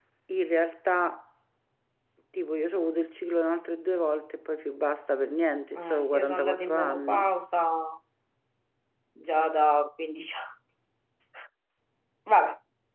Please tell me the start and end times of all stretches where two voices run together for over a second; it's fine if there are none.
5.7-7.3

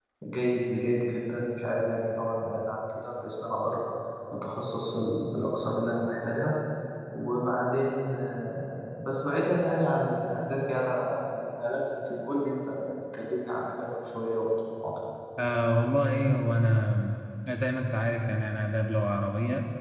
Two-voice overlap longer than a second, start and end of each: none

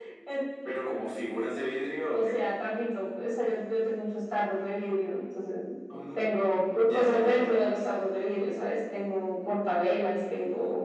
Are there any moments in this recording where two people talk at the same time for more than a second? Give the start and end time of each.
6.2-7.7

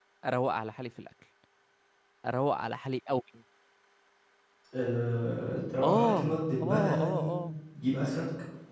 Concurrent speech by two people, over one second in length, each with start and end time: 5.8-7.4

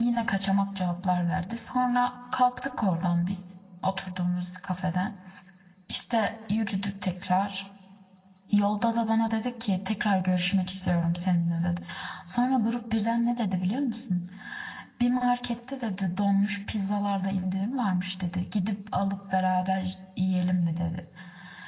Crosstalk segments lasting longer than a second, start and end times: none

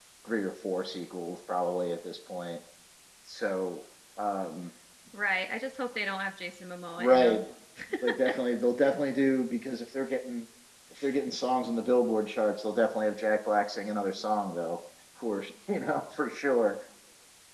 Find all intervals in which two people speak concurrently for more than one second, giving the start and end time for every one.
none

